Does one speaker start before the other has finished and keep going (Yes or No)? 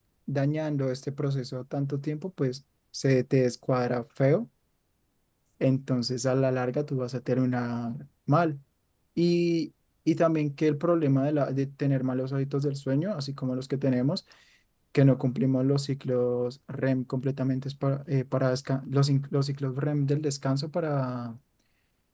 No